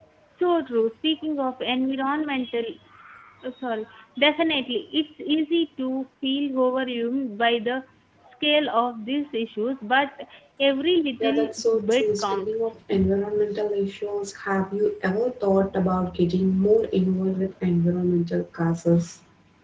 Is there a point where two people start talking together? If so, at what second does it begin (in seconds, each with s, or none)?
11.2 s